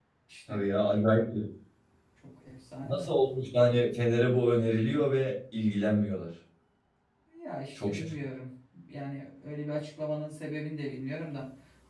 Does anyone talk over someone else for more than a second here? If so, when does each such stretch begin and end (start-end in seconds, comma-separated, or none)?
none